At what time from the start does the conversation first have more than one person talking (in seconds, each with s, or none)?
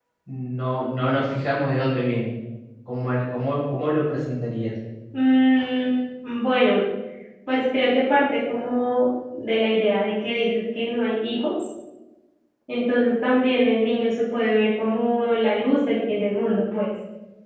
none